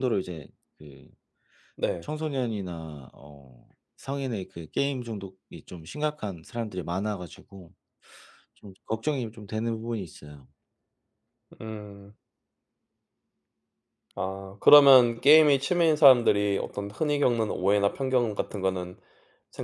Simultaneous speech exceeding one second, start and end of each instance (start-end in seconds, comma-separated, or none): none